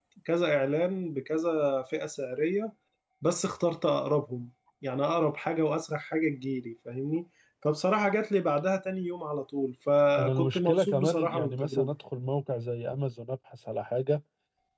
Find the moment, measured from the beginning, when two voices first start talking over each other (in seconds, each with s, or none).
10.2 s